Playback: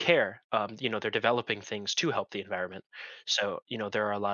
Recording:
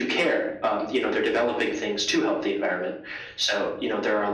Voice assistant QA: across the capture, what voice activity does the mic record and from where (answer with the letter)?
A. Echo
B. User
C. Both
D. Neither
A